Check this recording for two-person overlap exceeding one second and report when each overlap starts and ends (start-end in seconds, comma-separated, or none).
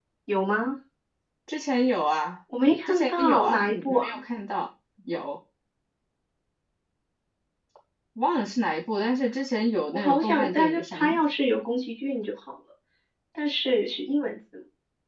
2.9-4.2, 9.9-11.3